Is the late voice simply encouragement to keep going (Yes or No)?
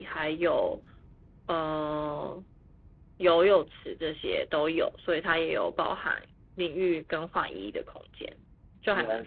No